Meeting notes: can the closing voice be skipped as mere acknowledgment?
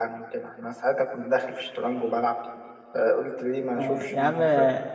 No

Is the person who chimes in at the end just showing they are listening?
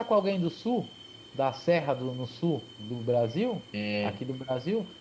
Yes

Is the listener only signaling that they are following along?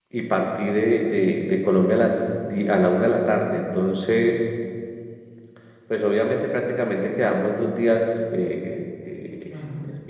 Yes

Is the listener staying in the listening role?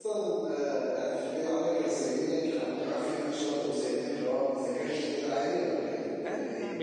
No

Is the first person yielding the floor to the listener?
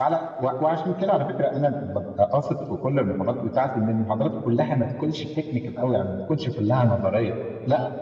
No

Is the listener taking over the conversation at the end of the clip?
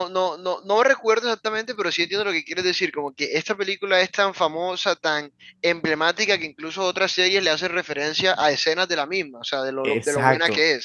Yes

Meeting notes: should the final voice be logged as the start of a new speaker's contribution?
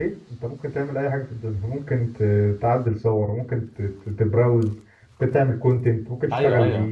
Yes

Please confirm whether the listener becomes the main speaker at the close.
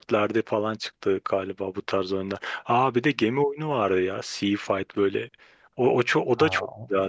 Yes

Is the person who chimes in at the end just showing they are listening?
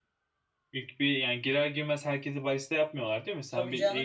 No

